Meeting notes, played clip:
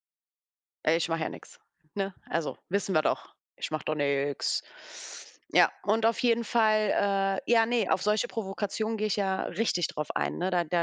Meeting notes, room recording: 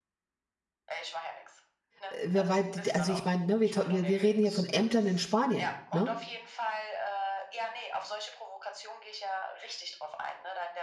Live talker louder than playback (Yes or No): Yes